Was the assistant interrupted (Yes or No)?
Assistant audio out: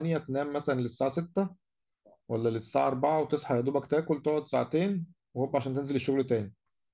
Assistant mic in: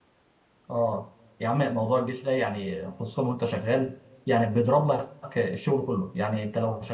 Yes